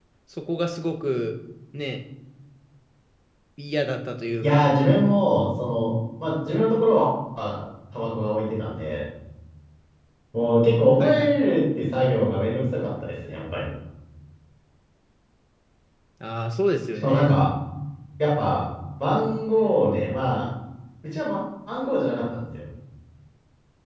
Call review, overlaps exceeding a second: none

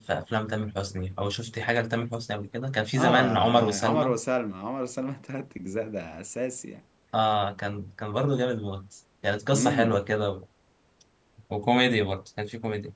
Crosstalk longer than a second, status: present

